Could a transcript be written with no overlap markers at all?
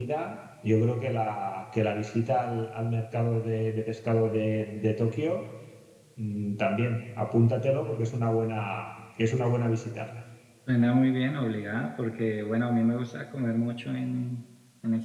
Yes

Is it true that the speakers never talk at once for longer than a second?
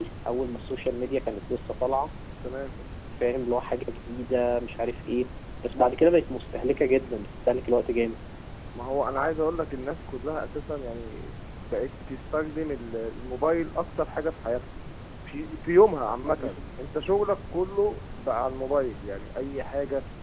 Yes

